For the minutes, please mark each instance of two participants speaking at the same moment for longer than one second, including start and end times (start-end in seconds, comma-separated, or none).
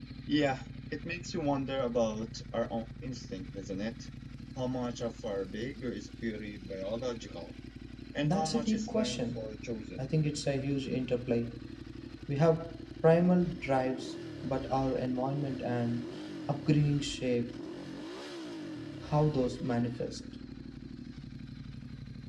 8.2-9.4